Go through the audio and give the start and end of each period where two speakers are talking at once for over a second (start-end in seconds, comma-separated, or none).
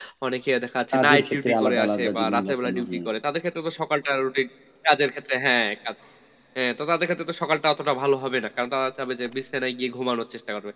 0.9-3.1